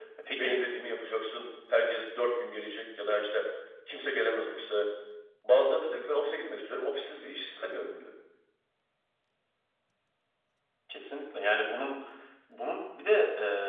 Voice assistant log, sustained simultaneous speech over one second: none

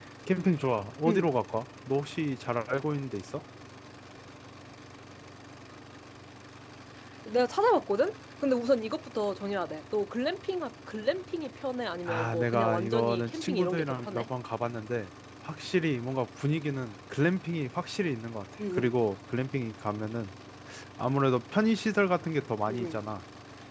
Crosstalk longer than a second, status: present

